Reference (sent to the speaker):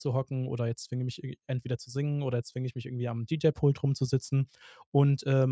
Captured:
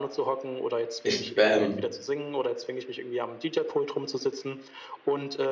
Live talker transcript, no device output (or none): ich, ähm